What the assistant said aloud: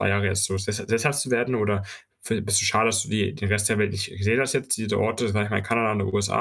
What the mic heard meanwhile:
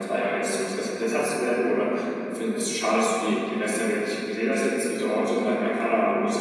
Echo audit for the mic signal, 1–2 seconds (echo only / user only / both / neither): echo only